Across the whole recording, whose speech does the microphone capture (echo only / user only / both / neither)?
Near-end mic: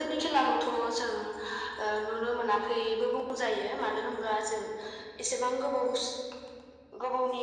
echo only